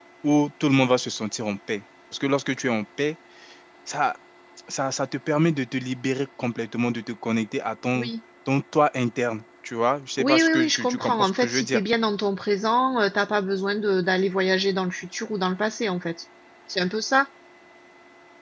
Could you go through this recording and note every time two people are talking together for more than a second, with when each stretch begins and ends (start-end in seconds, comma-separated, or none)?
10.2-11.8